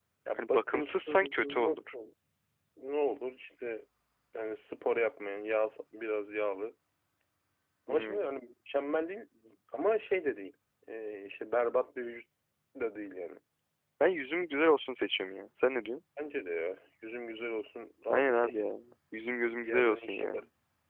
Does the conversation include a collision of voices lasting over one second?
Yes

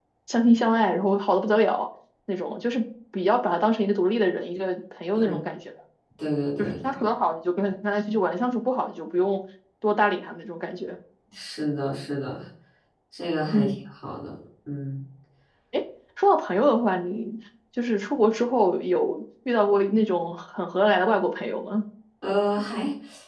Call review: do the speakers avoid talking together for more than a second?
Yes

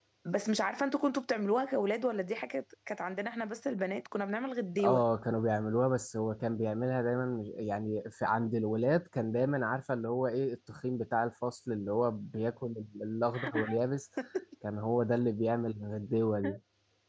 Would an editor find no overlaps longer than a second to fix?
Yes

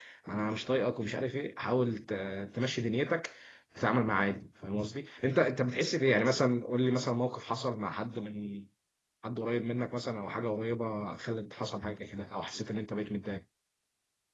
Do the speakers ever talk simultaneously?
No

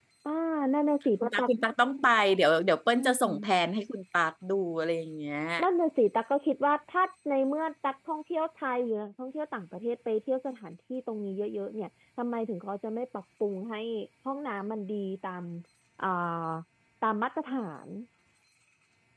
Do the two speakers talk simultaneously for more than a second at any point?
No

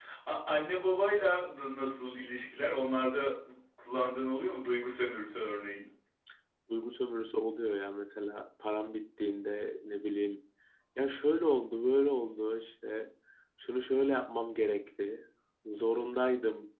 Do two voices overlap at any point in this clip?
No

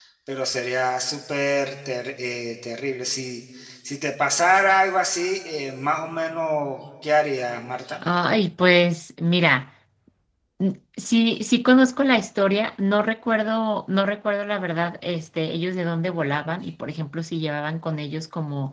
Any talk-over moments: No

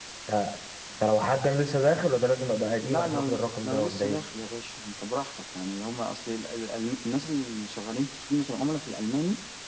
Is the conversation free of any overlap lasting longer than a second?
No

